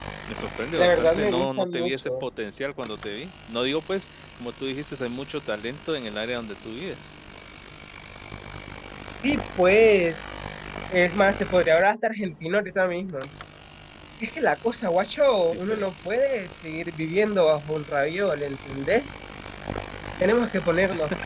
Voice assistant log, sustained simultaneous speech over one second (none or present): present